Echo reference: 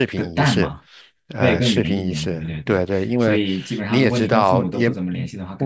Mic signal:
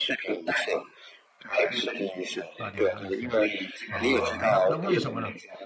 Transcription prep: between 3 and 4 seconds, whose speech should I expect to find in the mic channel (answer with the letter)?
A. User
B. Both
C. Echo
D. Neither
B